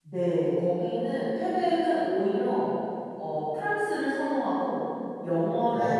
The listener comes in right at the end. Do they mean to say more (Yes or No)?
No